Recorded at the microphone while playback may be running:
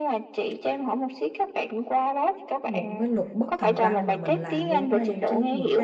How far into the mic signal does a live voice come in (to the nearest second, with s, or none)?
3 s